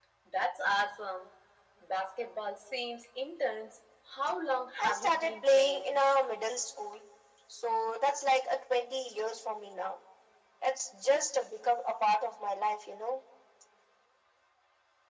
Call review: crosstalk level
present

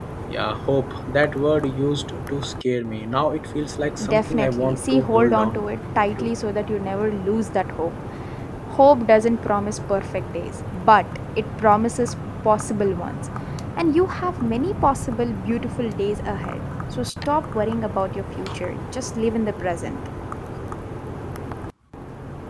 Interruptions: present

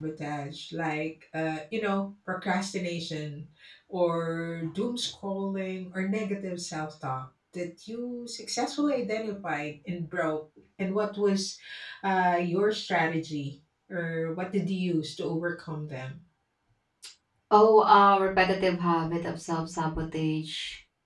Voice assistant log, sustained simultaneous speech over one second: none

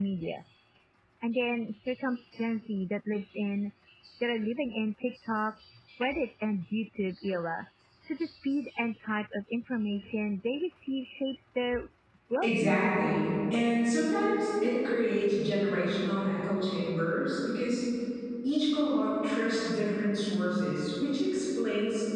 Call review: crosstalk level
present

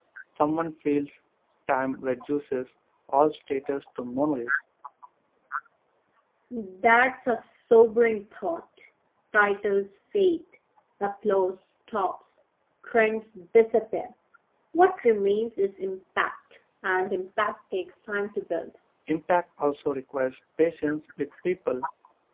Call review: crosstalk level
none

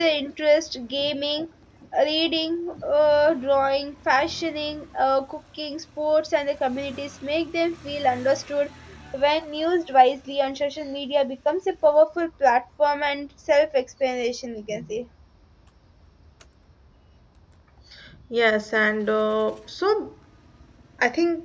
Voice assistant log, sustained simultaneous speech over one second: none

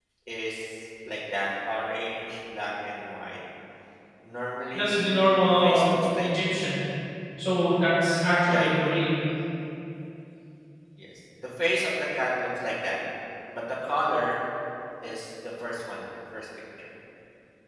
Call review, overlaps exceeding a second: present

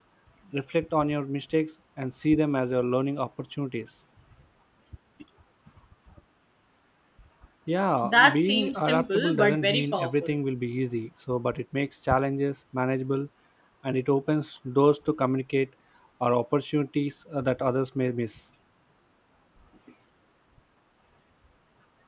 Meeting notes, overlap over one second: present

